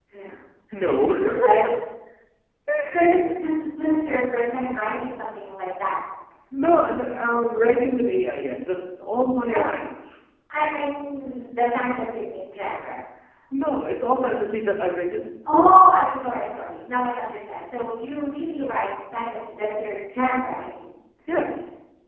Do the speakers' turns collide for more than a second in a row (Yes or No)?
No